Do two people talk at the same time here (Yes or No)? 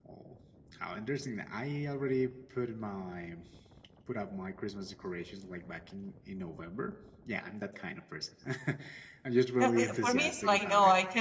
Yes